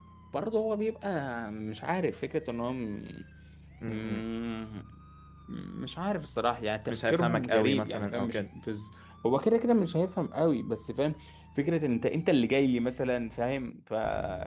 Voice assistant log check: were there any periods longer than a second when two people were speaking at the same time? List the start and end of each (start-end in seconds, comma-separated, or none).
6.9-8.4